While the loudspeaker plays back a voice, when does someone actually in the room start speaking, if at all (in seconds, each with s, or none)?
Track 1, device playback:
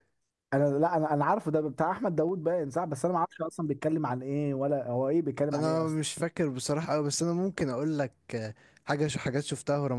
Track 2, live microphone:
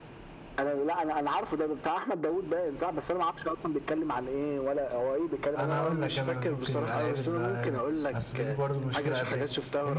5.6 s